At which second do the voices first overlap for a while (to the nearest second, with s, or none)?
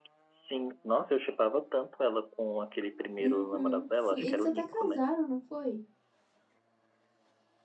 3 s